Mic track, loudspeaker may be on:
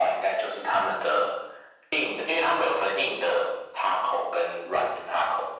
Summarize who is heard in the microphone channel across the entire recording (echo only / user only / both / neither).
echo only